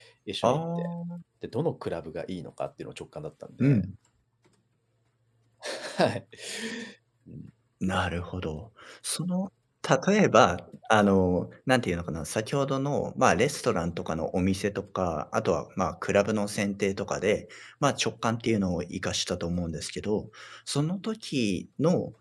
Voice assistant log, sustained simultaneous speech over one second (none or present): none